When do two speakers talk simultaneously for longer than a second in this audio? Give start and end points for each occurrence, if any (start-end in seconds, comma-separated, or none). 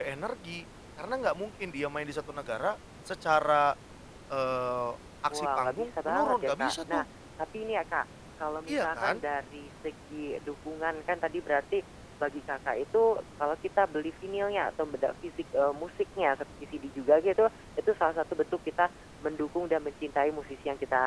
5.3-7.0